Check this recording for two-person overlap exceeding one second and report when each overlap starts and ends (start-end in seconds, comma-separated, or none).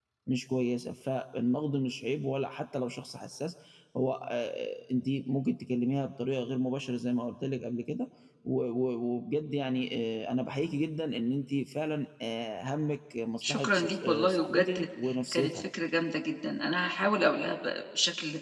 13.4-14.9